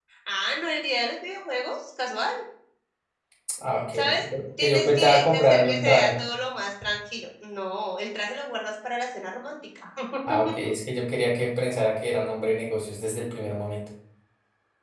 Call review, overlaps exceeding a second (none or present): present